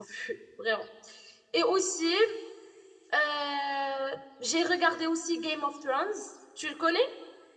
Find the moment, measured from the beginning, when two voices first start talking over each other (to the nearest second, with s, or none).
none